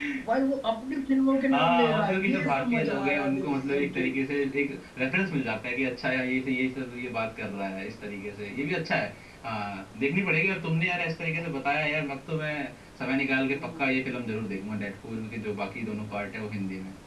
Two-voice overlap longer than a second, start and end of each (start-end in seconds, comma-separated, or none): 1.5-4.1